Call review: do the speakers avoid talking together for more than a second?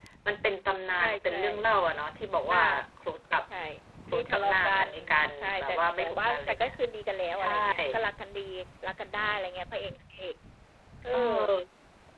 No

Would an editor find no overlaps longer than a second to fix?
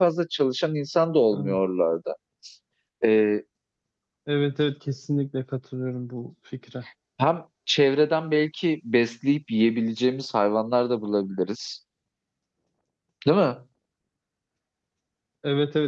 Yes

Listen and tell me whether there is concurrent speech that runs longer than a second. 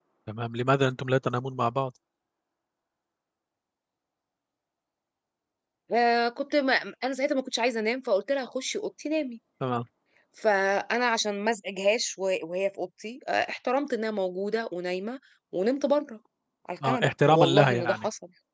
Yes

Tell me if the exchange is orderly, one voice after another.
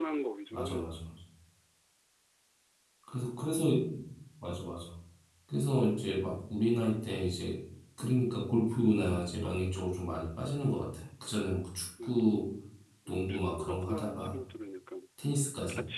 No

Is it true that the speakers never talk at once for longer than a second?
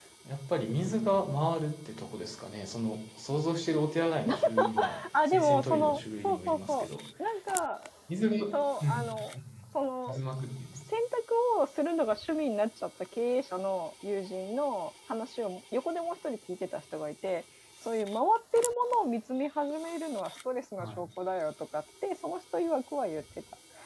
No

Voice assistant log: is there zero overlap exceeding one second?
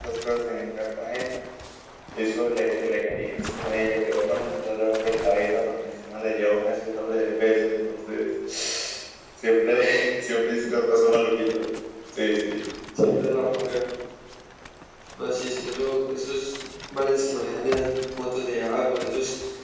Yes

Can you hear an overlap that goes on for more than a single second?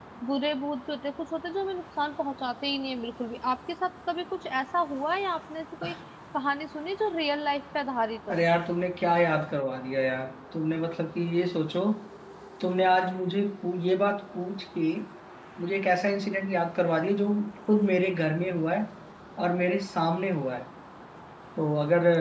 No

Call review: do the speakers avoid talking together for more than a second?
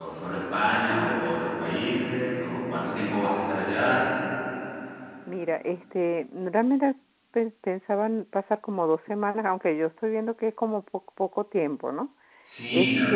Yes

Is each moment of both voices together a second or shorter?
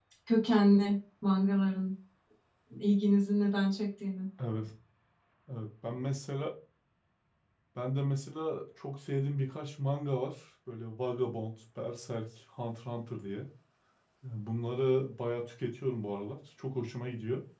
Yes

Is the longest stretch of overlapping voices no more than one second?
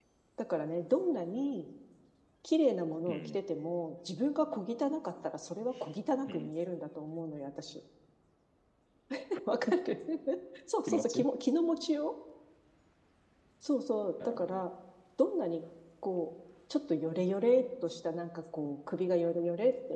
Yes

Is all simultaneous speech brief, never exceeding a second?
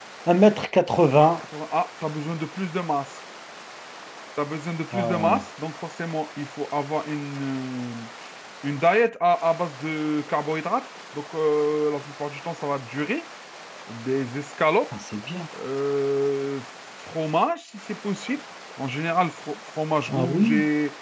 Yes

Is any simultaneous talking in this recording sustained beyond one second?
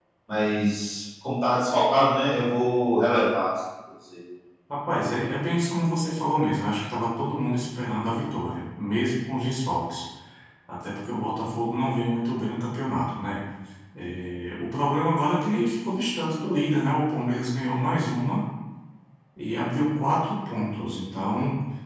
No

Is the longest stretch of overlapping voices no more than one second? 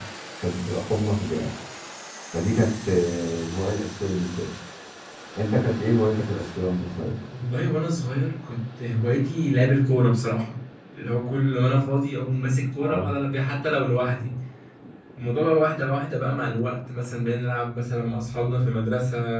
Yes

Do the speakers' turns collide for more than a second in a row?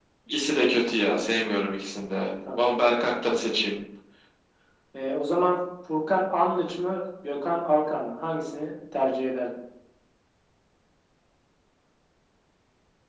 No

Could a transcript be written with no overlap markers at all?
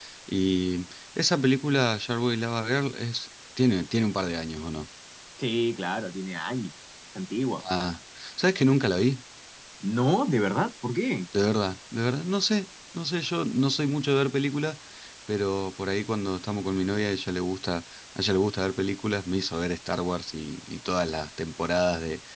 Yes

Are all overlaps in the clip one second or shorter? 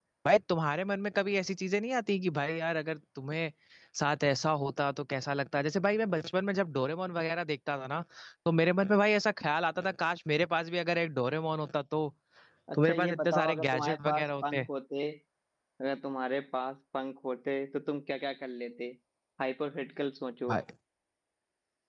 No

